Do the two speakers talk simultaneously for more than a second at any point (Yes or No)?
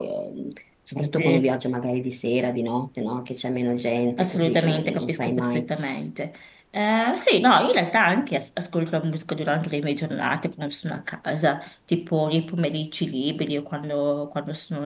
Yes